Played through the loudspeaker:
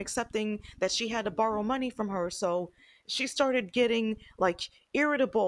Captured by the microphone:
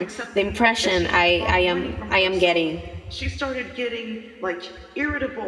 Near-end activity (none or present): present